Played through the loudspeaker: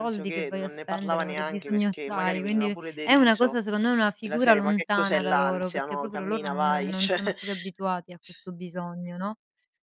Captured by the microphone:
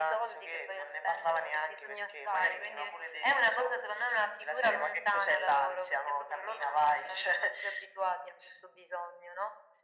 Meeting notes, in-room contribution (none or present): none